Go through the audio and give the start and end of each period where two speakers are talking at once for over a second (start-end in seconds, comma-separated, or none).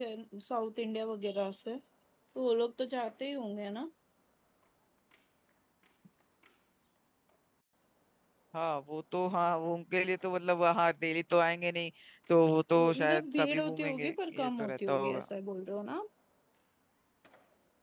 12.8-15.2